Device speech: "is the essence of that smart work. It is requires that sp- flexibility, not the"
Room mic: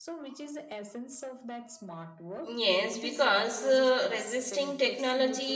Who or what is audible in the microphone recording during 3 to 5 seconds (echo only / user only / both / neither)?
both